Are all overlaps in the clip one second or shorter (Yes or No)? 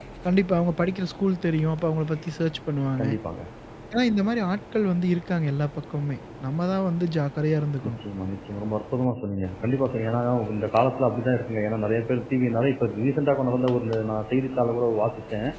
Yes